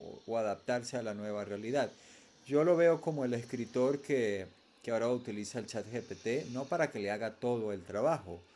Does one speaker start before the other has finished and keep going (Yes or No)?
No